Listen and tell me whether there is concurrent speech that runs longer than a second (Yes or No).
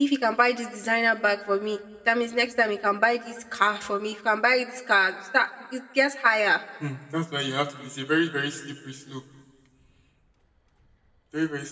No